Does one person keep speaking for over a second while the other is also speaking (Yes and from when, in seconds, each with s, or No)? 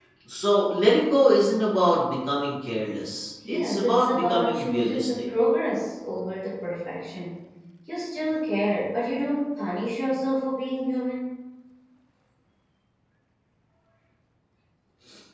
Yes, from 3.4 s